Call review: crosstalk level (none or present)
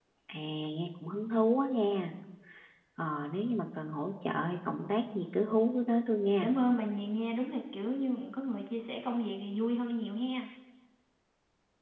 none